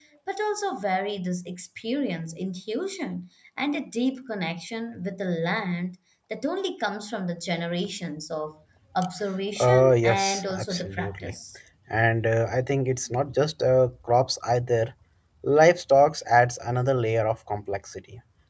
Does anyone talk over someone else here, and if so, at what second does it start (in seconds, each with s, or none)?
9.6 s